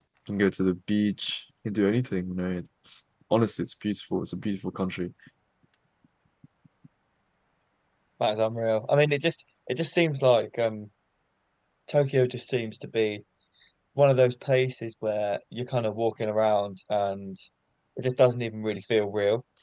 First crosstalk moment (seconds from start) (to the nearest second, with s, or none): none